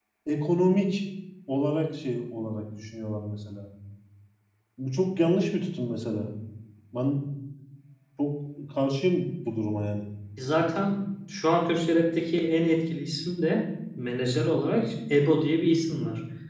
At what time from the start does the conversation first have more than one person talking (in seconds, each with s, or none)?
none